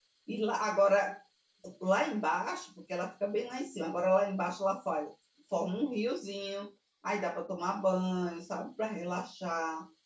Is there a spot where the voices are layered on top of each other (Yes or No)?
No